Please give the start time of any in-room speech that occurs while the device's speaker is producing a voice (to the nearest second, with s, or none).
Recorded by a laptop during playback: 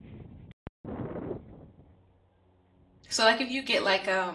3 s